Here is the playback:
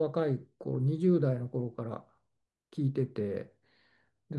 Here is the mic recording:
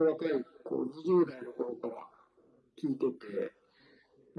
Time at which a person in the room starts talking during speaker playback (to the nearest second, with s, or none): none